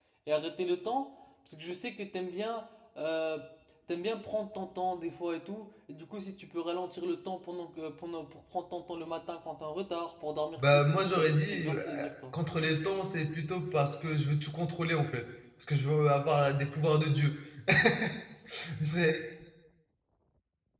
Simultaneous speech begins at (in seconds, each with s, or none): 10.6 s